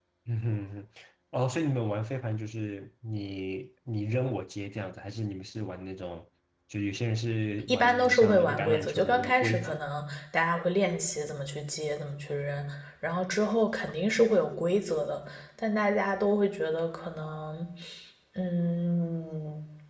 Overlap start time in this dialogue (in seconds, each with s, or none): 7.7 s